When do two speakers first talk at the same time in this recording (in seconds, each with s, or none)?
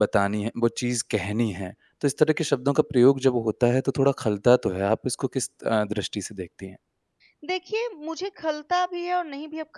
none